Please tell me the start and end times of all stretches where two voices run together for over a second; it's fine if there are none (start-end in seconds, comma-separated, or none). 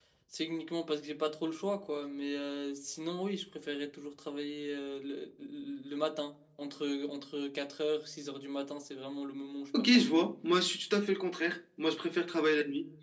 none